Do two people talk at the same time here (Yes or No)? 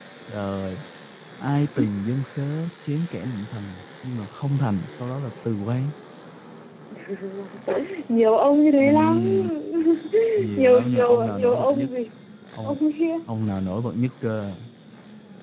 Yes